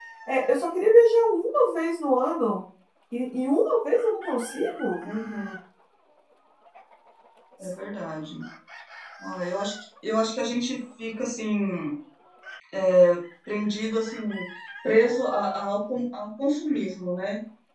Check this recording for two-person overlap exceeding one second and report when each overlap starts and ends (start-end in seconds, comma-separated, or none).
none